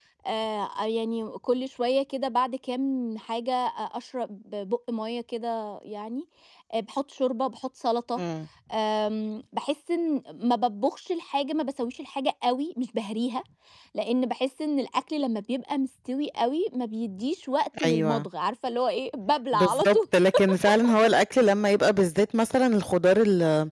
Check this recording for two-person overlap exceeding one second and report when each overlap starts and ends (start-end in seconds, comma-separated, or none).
none